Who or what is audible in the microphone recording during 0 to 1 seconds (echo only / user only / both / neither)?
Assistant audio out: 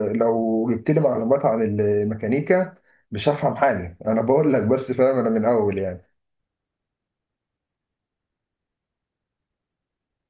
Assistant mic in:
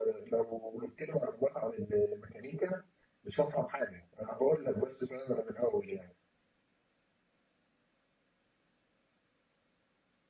echo only